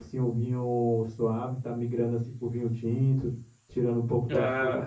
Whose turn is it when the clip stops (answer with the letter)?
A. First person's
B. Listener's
A